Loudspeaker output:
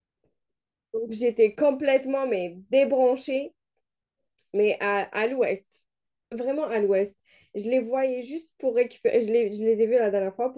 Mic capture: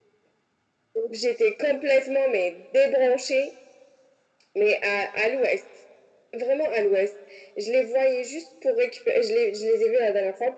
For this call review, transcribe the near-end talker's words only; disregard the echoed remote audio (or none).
none